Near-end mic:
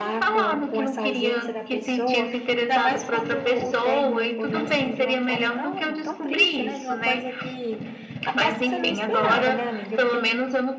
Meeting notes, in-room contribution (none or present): present